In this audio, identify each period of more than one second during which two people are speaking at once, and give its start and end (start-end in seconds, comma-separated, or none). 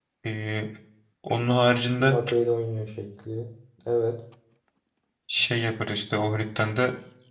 none